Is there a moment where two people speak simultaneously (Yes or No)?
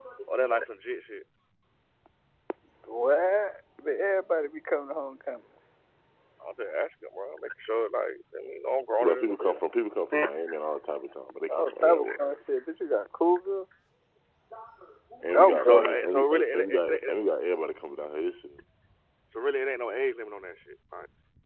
Yes